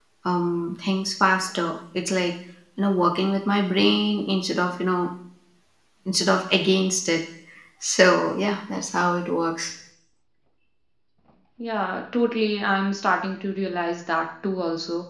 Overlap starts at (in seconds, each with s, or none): none